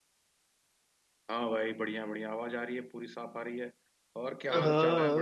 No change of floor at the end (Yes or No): No